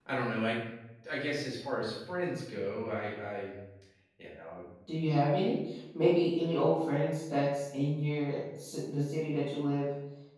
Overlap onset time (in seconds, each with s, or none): none